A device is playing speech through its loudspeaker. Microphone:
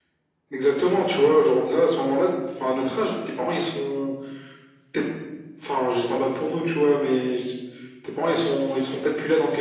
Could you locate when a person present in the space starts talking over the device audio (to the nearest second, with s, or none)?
none